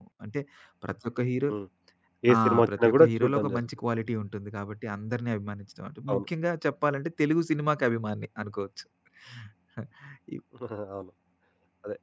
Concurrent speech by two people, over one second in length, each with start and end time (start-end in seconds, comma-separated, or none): 2.4-3.6